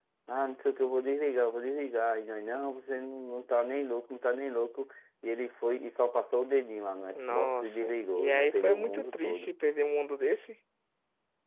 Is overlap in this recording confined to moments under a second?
No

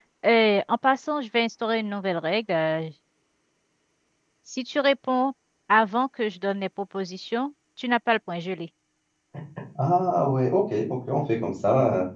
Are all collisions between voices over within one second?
Yes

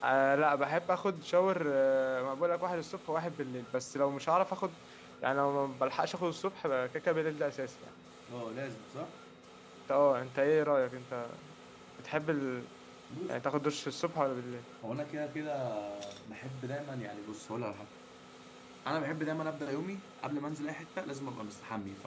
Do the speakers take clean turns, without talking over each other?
Yes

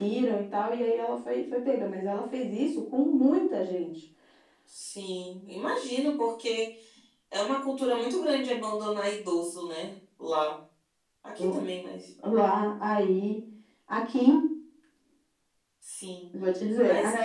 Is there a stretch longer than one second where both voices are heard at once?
No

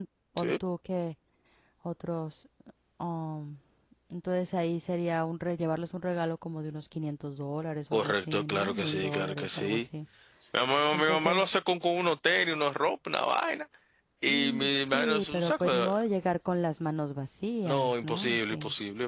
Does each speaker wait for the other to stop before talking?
No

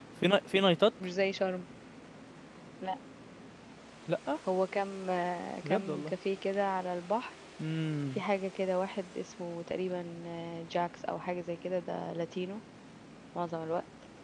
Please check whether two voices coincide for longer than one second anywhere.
No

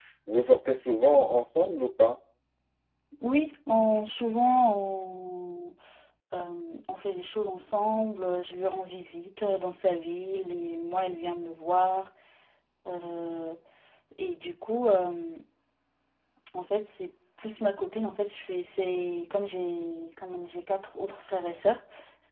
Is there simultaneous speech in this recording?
No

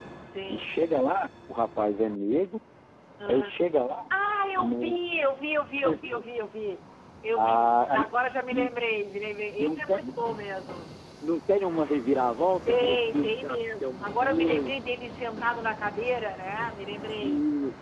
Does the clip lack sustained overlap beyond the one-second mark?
No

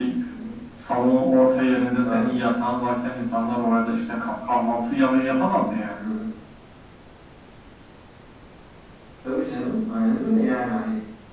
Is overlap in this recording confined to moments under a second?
Yes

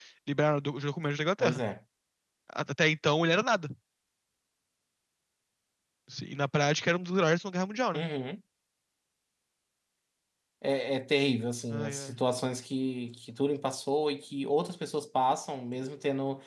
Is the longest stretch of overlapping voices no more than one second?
Yes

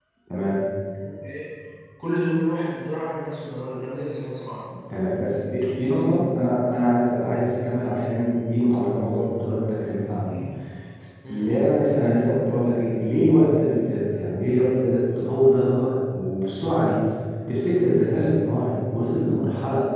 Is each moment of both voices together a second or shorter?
Yes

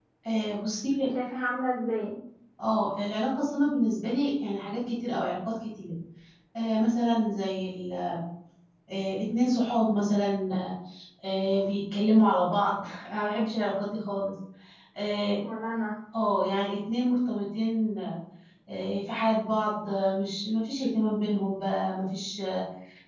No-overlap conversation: Yes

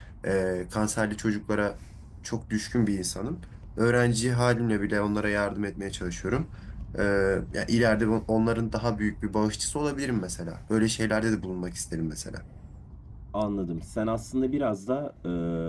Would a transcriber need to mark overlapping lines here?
No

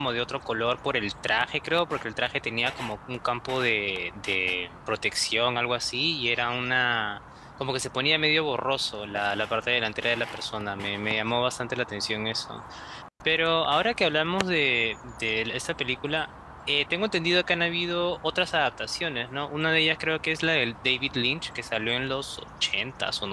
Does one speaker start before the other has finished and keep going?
No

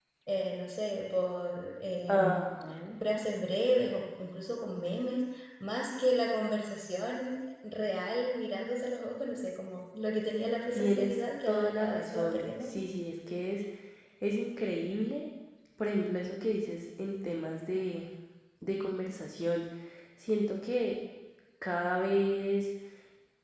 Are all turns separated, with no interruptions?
No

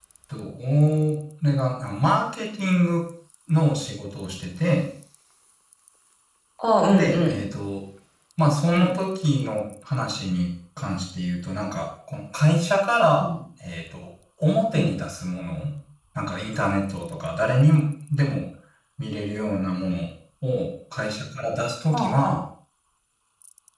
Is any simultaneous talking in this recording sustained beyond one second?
No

